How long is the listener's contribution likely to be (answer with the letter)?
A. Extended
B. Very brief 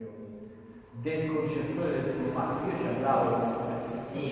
B